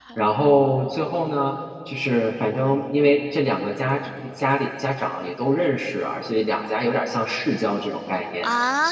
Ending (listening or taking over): listening